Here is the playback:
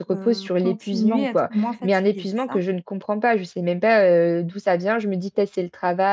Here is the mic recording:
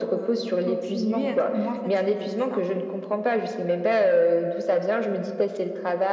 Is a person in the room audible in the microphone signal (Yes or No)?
No